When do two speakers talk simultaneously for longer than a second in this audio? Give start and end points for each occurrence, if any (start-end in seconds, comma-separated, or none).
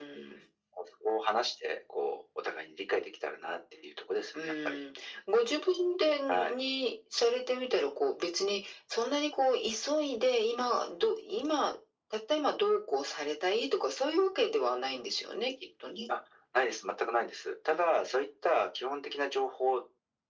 none